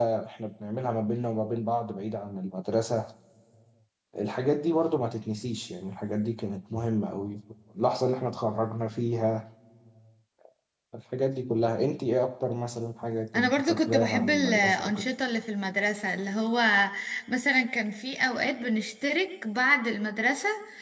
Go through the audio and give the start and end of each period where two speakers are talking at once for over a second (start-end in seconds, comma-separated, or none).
13.3-15.0